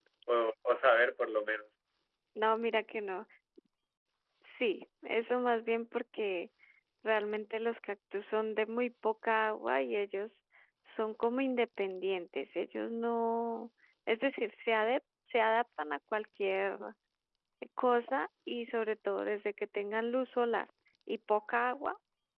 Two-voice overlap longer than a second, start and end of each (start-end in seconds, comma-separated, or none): none